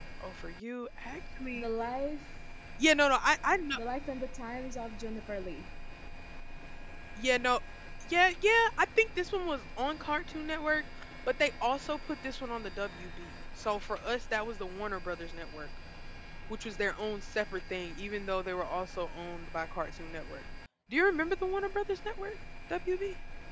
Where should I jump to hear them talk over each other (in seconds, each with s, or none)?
none